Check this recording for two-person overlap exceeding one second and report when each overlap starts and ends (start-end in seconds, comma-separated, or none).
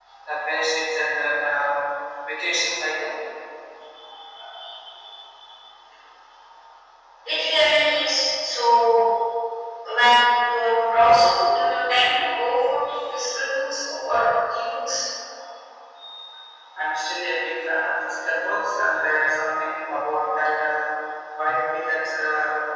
none